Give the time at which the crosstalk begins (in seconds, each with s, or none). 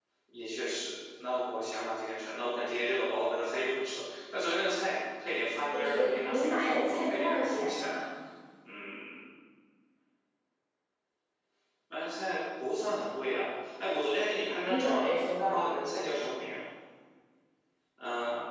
5.7 s